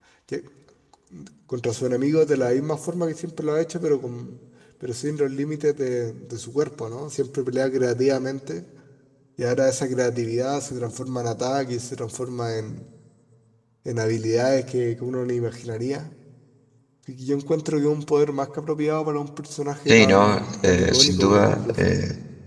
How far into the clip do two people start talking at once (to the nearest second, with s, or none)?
20 s